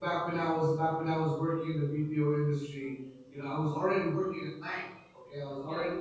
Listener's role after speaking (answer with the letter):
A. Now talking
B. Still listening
B